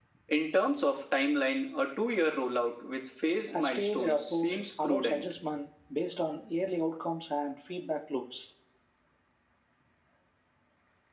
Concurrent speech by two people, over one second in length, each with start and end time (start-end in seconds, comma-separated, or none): 3.5-5.2